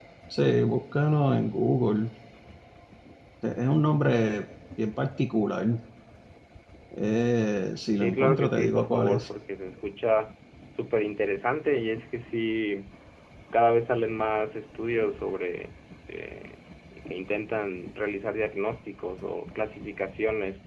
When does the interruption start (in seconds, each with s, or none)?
8.0 s